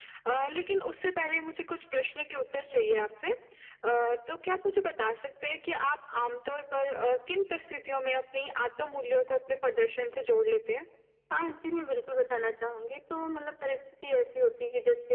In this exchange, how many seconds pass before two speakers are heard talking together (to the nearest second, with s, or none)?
none